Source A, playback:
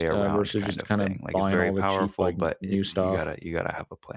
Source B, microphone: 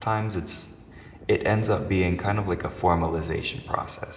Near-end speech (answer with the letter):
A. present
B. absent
A